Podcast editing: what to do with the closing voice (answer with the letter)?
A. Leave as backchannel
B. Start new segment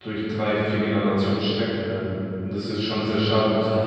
A